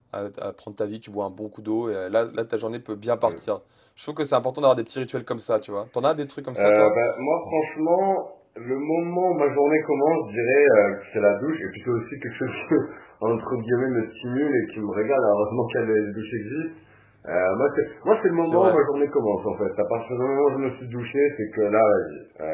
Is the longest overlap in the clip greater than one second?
No

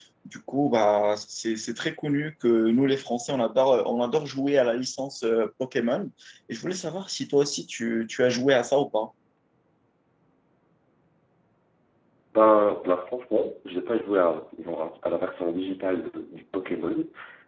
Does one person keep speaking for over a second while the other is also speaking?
No

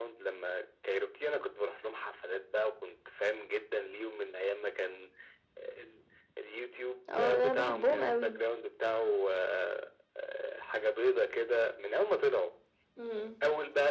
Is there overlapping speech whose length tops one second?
Yes, from 7.1 s

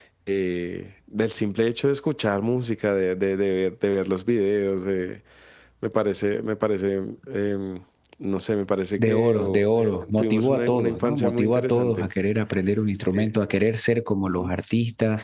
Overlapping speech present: Yes, from 9.1 s

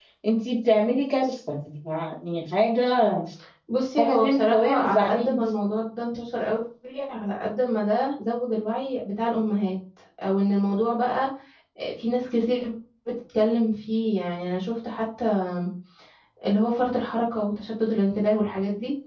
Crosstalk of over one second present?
Yes, from 4.0 s

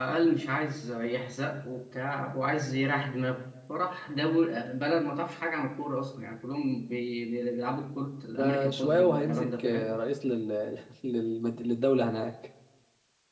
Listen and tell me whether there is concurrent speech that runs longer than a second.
Yes, from 8.3 s

